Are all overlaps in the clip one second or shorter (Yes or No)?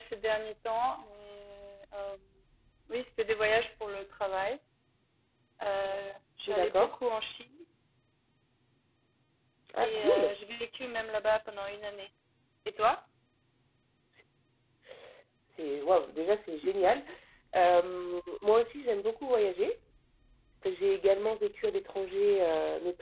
Yes